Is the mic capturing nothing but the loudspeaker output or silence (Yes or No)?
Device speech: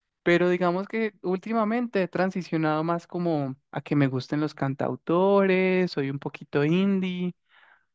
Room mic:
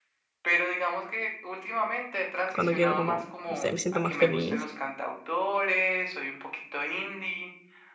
No